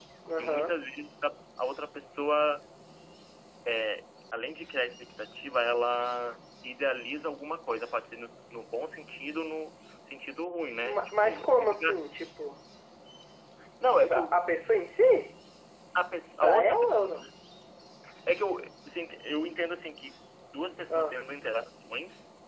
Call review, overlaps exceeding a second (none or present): present